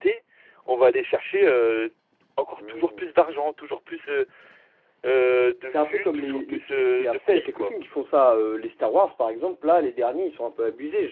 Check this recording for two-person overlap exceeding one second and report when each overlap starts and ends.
5.7-7.7

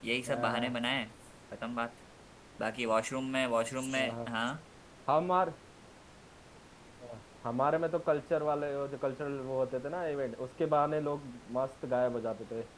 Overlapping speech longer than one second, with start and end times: none

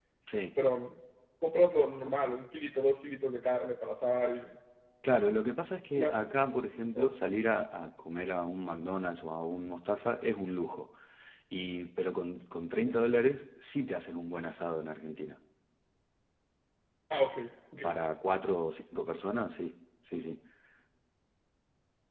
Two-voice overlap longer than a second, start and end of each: none

